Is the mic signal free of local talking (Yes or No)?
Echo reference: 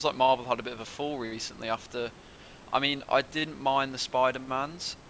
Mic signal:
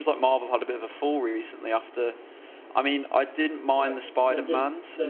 No